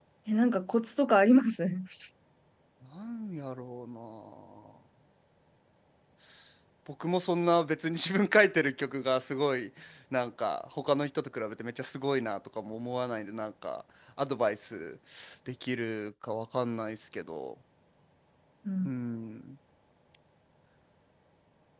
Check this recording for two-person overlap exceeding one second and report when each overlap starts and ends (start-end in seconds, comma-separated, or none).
none